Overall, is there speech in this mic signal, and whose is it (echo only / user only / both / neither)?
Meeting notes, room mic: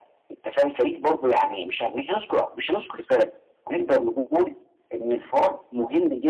echo only